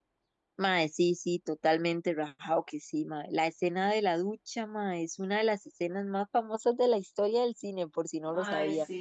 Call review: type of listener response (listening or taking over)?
taking over